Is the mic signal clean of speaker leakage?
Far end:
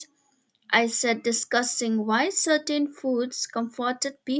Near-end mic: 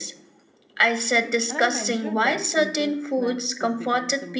No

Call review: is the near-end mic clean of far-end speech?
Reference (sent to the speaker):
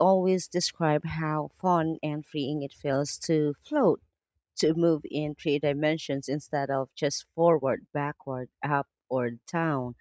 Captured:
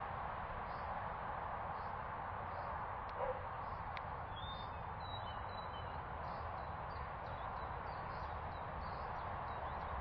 Yes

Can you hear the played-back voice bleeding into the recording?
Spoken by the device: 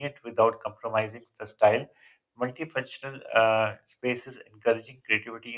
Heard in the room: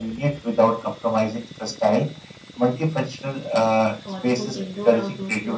Yes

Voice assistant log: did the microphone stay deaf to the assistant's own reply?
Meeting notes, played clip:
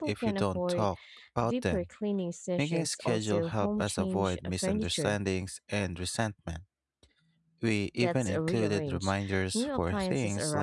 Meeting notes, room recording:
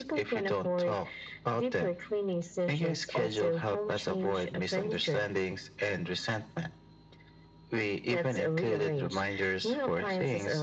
No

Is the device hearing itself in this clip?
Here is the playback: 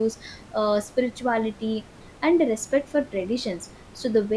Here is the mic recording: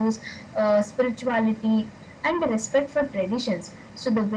Yes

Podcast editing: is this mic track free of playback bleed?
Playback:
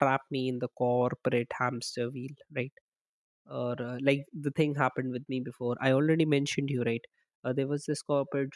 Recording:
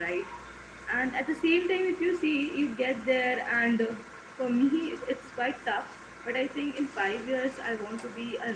Yes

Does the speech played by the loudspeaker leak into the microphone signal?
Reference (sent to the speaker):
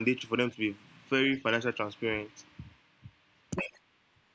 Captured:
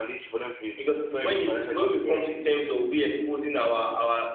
Yes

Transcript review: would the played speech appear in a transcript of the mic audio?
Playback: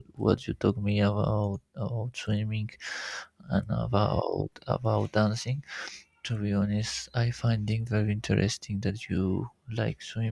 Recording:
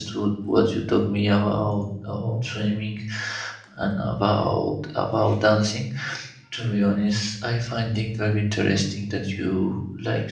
Yes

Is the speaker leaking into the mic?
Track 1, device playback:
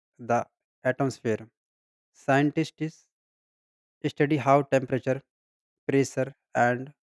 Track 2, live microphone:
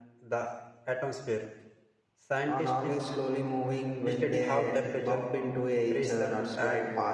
Yes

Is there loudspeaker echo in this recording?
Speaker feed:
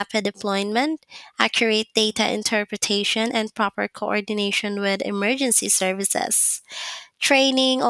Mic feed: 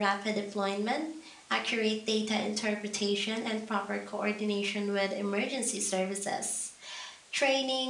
Yes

